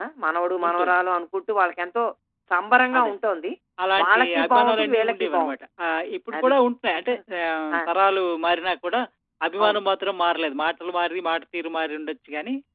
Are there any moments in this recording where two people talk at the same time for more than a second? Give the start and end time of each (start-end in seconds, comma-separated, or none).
4.0-5.5